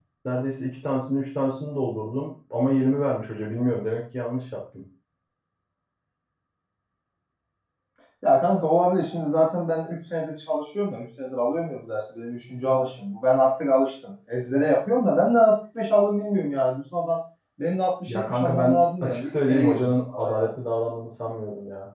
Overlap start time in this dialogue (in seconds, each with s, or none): 18.1 s